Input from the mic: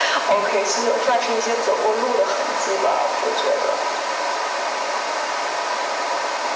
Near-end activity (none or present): none